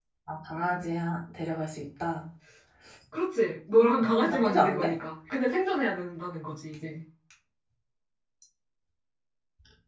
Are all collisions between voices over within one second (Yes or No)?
No